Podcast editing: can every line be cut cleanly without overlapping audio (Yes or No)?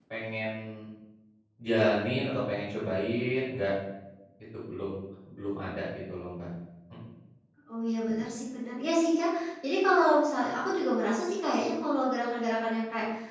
Yes